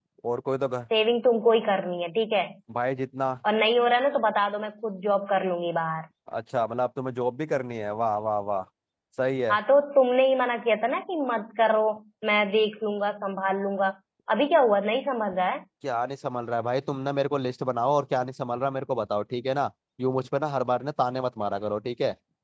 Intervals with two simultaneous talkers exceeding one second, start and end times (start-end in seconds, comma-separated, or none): none